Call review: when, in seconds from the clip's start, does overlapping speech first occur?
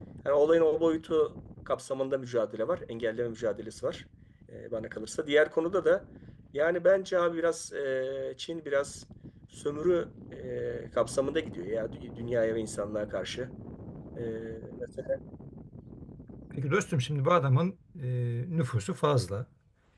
none

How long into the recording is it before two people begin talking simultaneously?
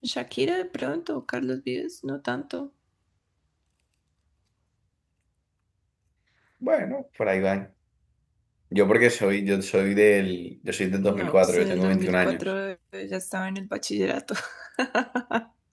11 s

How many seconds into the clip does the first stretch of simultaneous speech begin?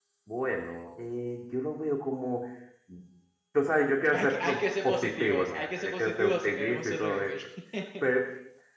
4 s

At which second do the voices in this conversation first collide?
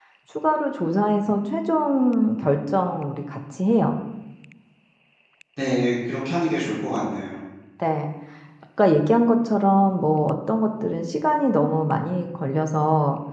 none

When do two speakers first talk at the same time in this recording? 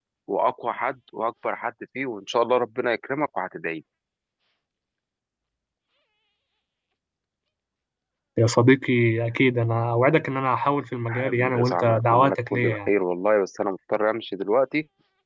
11 s

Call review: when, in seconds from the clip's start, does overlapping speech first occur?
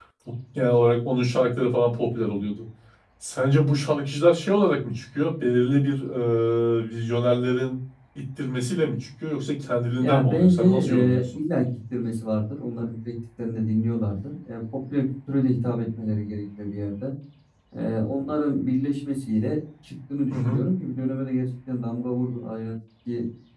10 s

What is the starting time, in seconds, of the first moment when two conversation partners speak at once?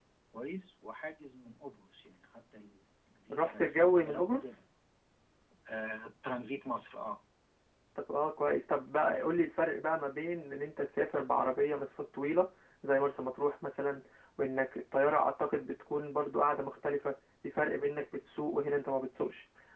3 s

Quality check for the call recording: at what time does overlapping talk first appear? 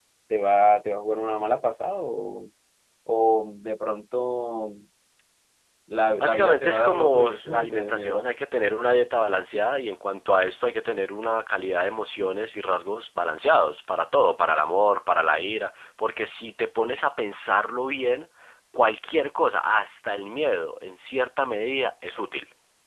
6 s

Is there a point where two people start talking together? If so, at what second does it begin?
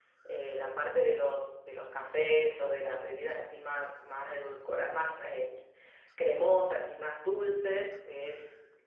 none

